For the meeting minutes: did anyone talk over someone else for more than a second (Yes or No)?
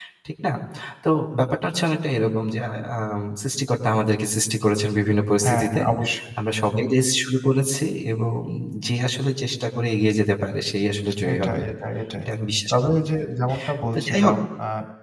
No